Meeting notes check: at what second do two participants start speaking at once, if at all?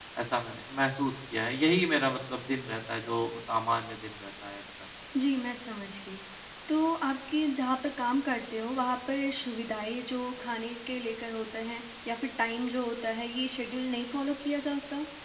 none

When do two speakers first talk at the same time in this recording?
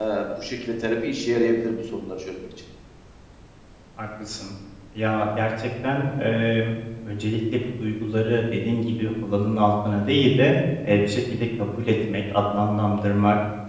none

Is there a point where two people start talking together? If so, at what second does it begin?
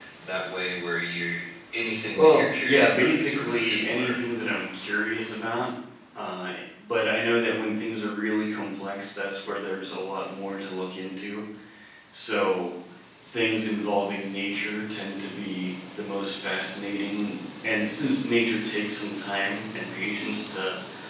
2.2 s

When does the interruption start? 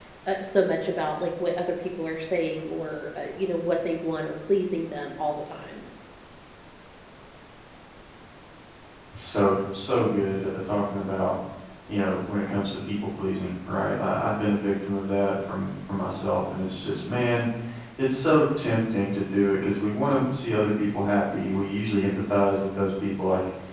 none

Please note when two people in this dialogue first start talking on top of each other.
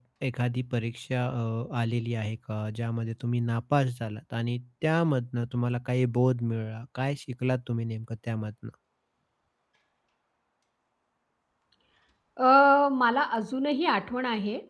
none

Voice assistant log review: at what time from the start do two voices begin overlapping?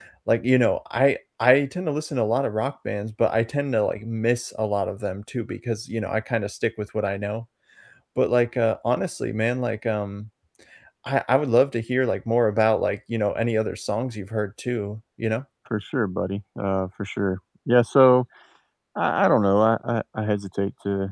none

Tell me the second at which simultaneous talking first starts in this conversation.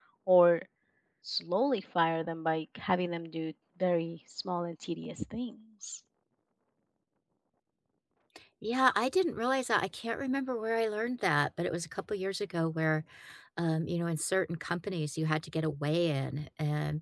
none

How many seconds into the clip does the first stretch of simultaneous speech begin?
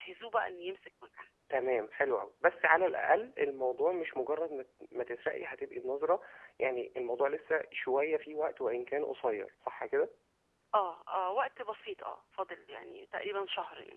none

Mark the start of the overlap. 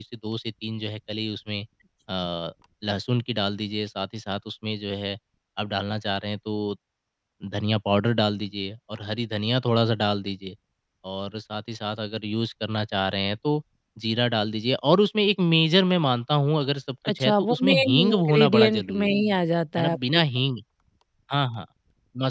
17.1 s

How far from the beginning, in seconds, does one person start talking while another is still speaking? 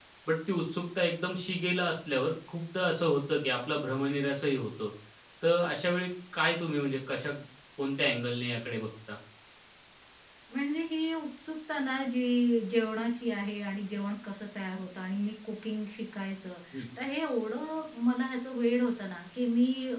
none

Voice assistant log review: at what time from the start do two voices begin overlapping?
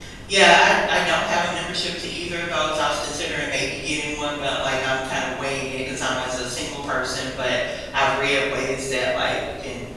none

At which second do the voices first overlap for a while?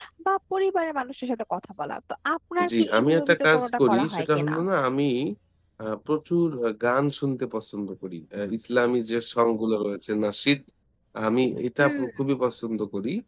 2.7 s

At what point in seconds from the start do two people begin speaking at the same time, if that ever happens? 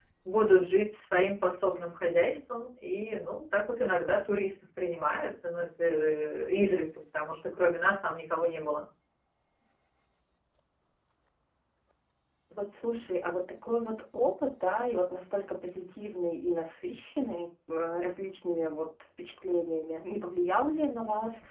none

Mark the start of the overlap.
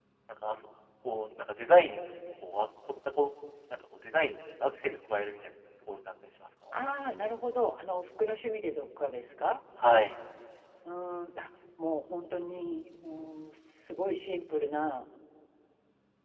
none

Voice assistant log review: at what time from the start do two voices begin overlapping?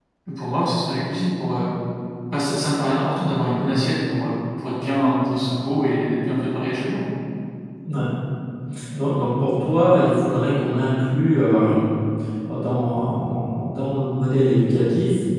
none

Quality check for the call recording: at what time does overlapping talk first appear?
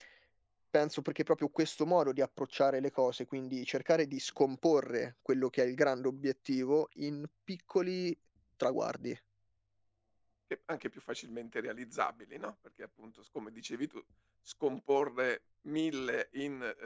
none

